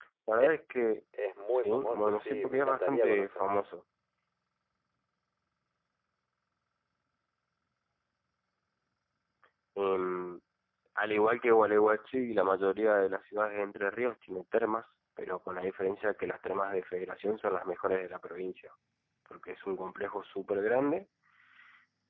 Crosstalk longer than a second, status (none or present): present